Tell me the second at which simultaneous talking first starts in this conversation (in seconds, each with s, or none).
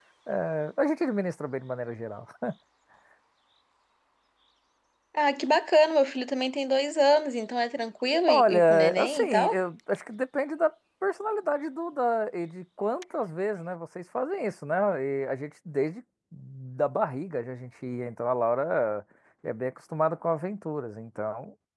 8.3 s